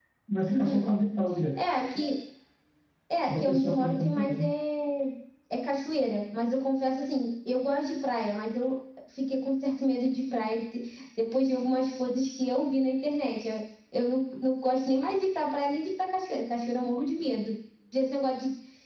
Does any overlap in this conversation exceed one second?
Yes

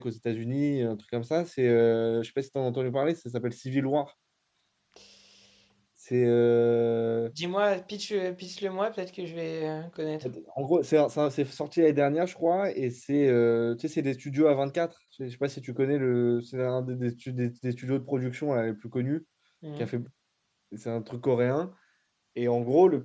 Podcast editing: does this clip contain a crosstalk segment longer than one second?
No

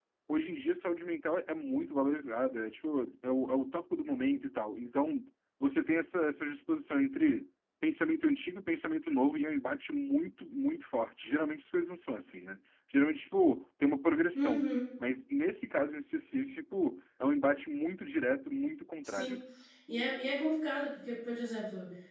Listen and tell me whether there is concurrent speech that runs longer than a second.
No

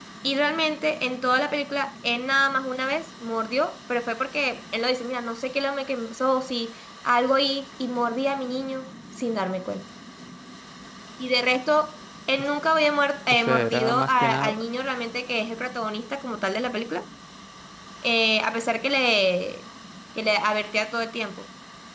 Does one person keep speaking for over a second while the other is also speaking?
Yes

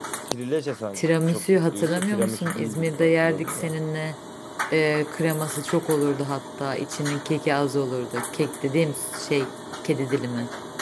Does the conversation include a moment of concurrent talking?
Yes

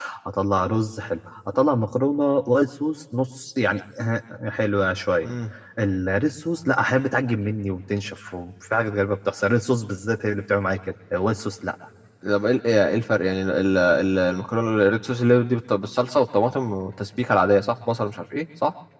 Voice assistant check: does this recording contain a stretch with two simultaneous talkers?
No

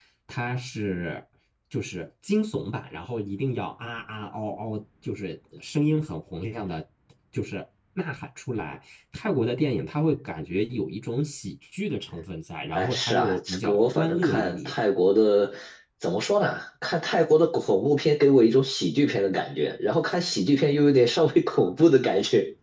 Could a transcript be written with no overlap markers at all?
No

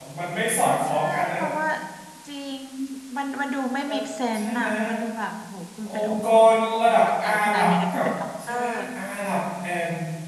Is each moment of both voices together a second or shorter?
No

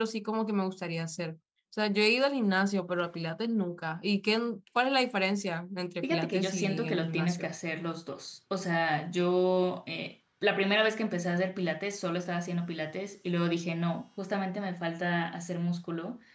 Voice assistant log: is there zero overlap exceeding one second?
No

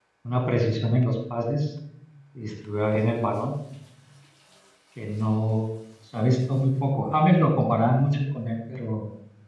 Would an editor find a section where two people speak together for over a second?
No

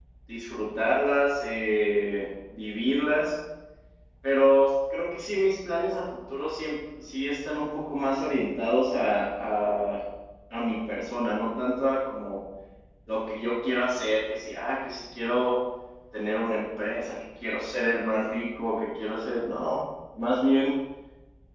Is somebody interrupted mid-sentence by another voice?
No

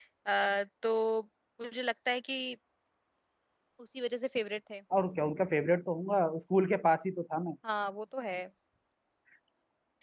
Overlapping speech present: No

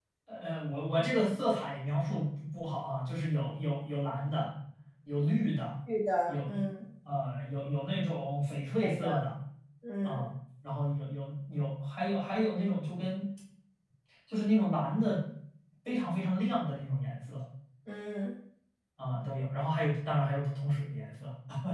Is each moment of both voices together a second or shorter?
Yes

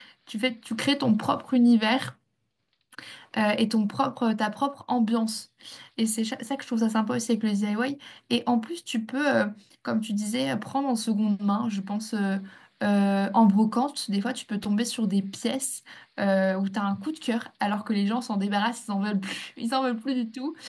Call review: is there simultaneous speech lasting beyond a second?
No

